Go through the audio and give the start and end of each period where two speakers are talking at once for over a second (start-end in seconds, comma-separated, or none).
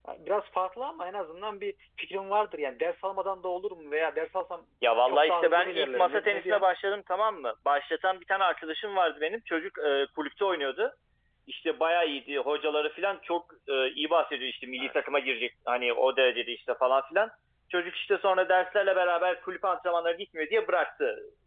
5.1-6.6